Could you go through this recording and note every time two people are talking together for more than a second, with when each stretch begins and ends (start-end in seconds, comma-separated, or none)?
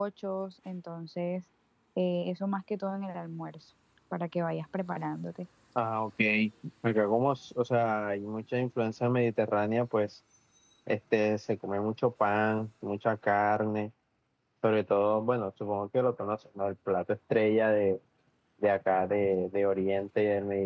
none